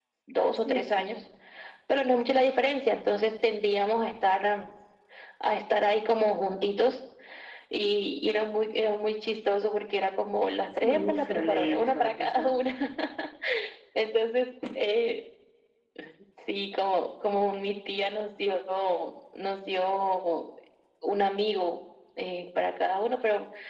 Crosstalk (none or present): present